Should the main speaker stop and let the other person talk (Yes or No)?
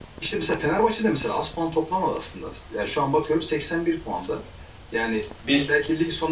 No